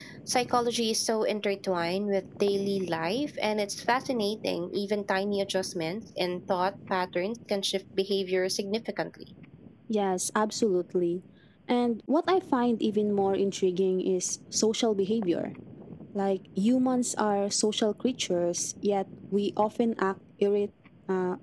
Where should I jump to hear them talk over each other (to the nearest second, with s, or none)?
none